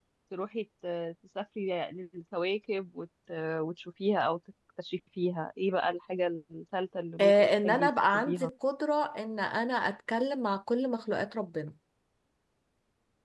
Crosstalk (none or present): present